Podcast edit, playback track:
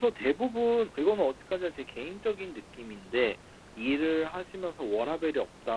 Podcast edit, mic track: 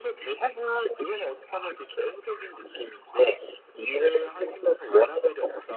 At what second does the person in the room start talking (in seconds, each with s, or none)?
none